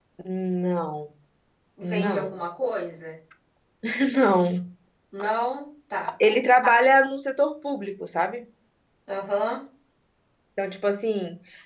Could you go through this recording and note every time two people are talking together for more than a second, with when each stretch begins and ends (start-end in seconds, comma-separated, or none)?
none